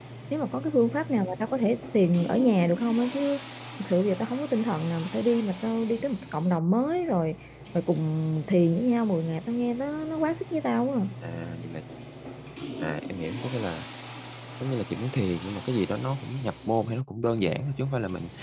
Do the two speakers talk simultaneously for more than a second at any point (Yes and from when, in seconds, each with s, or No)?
No